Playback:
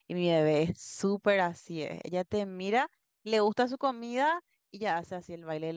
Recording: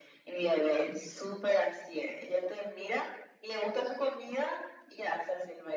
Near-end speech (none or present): none